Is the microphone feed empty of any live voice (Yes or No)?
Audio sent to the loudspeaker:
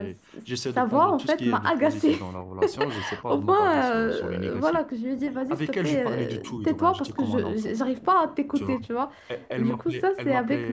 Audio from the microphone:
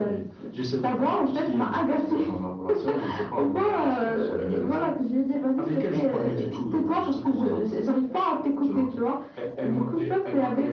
Yes